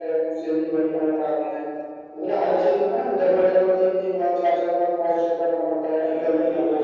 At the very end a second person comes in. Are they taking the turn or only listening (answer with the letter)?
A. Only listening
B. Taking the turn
B